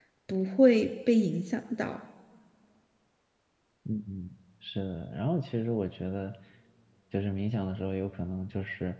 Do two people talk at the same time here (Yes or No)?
No